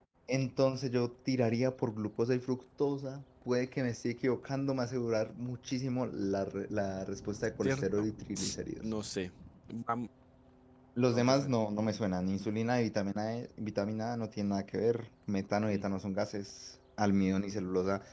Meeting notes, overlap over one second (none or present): none